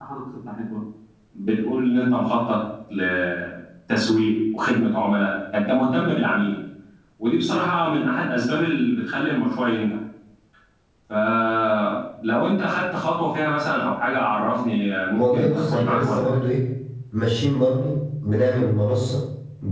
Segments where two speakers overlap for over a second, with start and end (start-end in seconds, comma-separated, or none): 15.2-16.4